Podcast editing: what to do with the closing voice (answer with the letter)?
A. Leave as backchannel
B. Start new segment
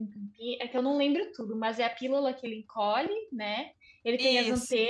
A